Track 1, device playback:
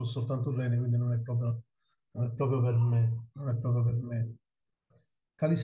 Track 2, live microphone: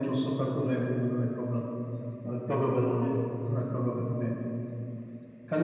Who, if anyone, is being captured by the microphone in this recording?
echo only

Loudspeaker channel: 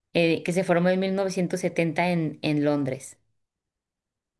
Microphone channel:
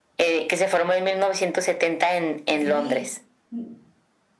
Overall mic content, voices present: both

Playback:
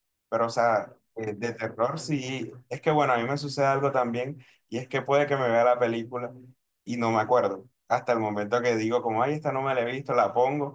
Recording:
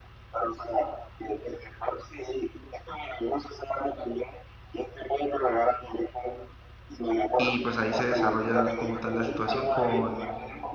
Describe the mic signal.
both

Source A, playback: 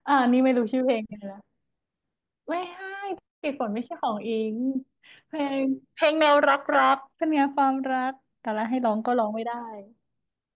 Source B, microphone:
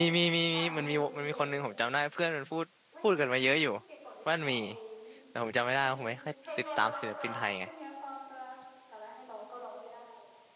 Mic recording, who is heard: both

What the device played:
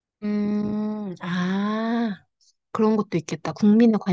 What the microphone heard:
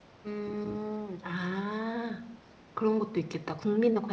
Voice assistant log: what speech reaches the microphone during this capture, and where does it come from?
echo only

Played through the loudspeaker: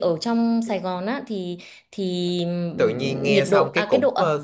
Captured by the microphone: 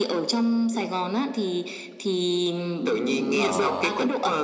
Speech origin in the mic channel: both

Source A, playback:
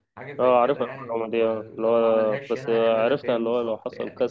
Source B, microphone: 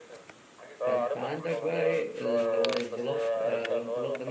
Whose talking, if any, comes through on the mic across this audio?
both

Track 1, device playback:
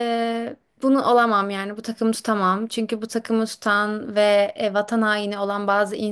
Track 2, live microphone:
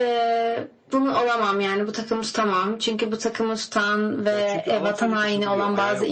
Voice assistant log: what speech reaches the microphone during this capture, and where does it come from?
both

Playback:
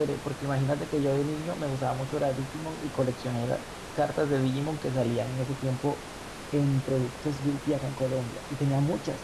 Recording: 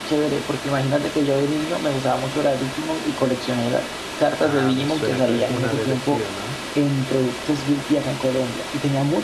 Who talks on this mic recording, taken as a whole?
both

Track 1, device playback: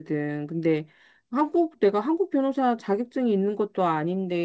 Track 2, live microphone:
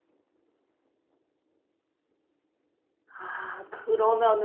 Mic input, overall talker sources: user only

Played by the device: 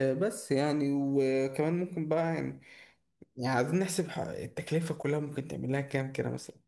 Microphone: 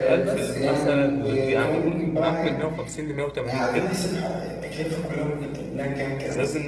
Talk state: both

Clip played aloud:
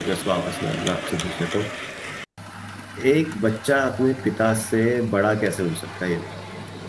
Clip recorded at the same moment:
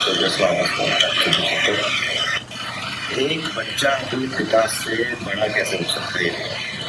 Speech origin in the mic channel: echo only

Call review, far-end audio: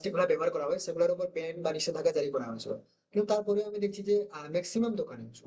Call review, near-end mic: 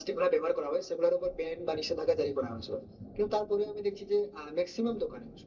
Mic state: echo only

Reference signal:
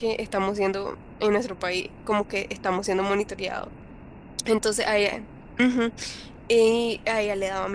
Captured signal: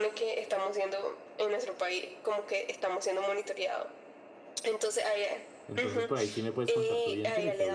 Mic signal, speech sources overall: both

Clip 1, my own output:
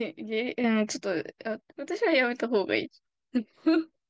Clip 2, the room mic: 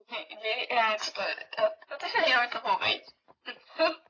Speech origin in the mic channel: echo only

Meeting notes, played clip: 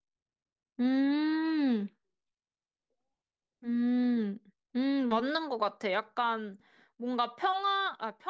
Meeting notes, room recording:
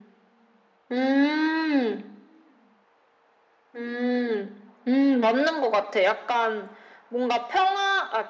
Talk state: echo only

